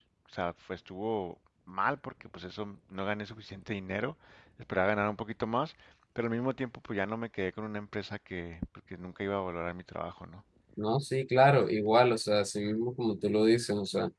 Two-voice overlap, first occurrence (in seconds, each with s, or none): none